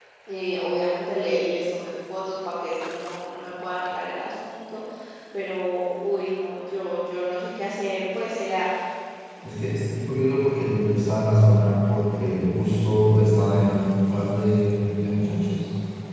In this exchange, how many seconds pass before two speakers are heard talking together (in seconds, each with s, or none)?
none